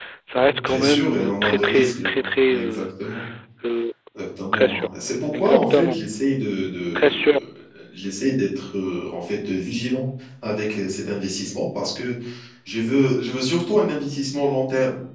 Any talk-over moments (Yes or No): Yes